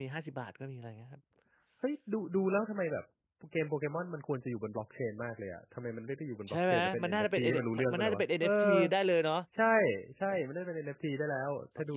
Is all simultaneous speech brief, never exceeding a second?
No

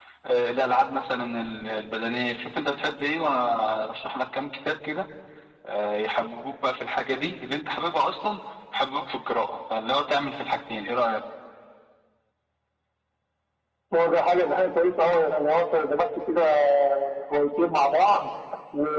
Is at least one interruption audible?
No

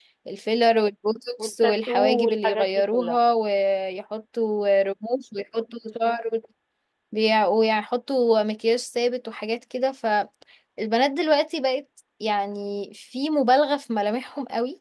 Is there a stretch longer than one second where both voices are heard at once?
Yes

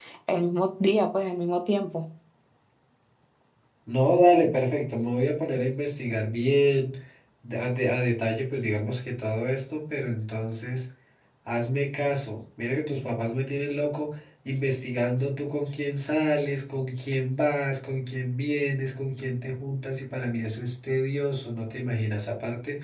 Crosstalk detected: No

